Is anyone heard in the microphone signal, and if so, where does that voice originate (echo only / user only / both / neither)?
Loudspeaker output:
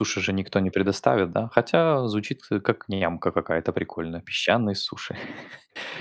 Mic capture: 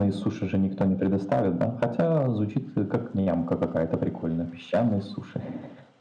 echo only